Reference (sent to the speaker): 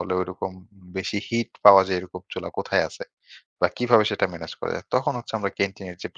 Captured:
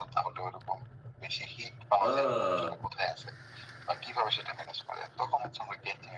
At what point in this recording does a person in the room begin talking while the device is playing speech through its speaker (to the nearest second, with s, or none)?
2 s